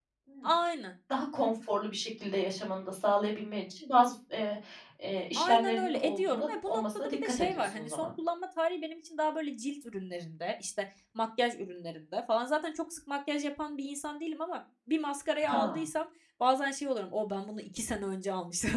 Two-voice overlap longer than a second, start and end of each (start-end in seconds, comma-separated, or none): 5.3-8.1